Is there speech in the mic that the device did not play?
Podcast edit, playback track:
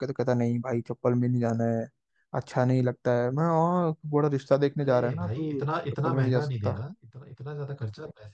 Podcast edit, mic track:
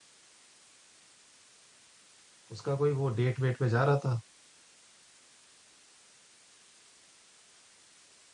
Yes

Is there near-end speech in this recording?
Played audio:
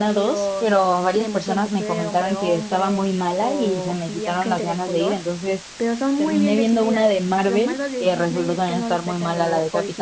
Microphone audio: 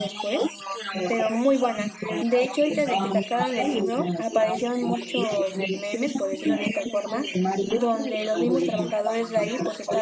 Yes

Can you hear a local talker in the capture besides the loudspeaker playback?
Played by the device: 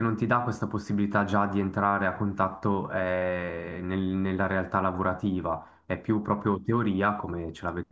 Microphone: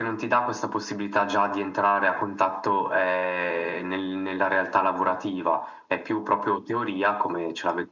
No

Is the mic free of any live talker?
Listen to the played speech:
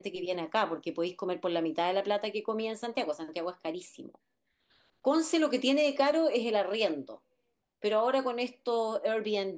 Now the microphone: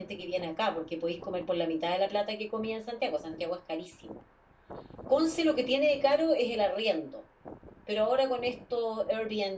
Yes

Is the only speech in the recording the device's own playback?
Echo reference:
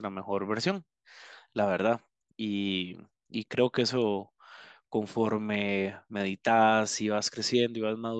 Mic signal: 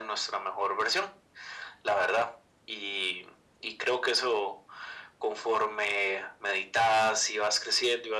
Yes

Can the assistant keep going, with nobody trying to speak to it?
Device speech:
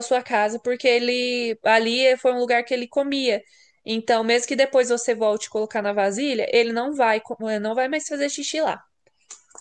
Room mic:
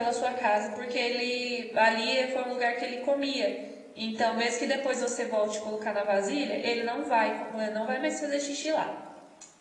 Yes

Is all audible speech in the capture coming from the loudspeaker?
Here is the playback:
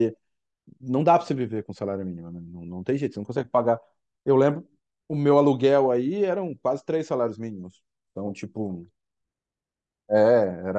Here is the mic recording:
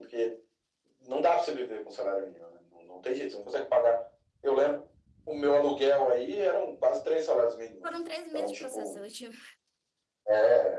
No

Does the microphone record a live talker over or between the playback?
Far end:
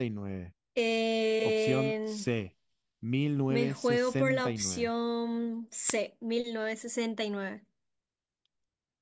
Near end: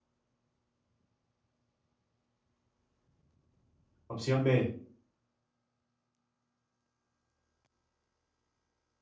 Yes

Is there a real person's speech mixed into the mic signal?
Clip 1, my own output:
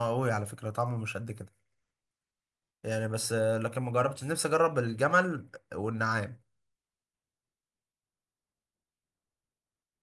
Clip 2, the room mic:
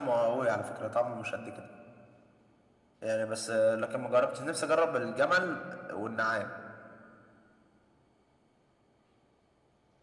No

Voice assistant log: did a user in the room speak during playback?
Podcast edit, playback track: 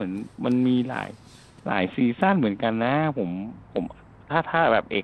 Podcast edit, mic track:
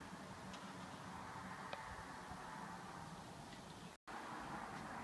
No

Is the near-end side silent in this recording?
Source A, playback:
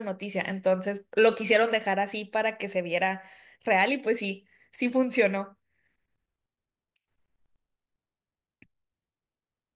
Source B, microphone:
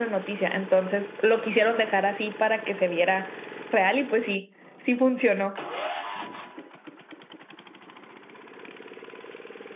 Yes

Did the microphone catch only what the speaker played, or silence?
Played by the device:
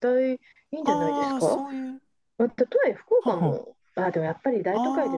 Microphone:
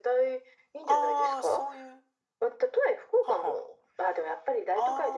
Yes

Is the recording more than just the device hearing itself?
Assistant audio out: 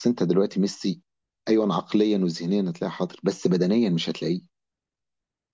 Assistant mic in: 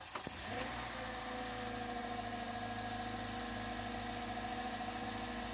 No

